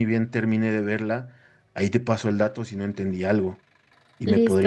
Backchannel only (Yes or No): No